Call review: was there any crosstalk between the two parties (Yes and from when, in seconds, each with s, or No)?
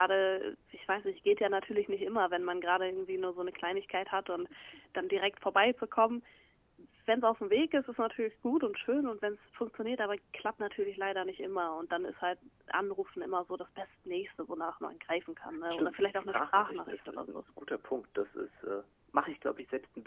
Yes, from 15.7 s